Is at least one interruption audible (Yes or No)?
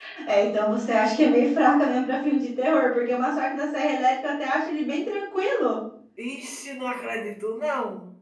No